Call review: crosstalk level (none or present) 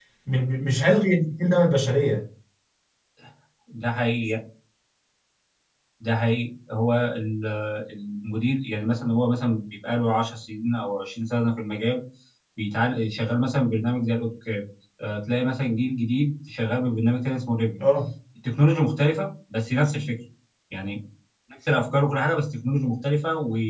none